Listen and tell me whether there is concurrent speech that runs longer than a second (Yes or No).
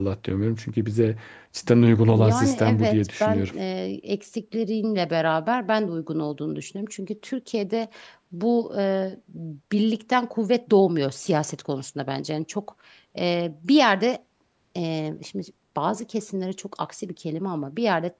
Yes